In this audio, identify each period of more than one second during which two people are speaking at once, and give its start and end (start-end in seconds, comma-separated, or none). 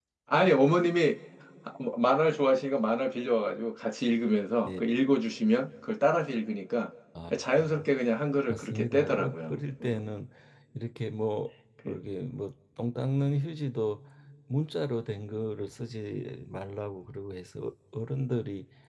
8.5-10.0